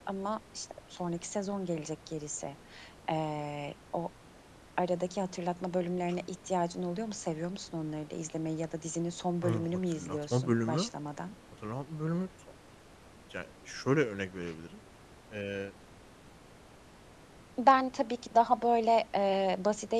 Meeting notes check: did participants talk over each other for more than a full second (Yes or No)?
Yes